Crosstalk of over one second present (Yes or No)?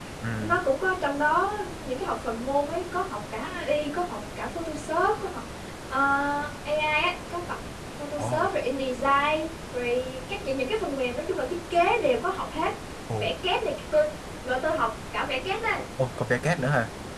No